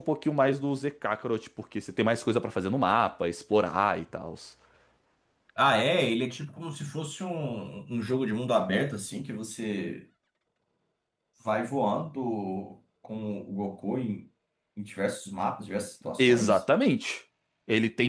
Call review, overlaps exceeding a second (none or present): none